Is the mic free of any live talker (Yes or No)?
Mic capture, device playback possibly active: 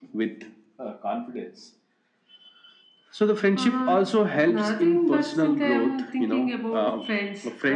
Yes